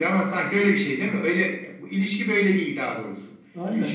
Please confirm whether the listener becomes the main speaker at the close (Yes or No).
Yes